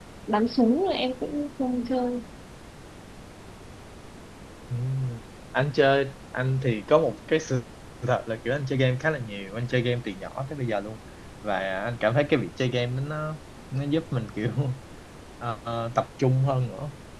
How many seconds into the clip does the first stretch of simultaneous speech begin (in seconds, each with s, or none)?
none